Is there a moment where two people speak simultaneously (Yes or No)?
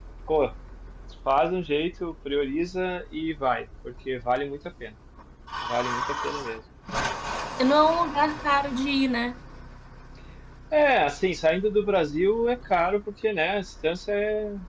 No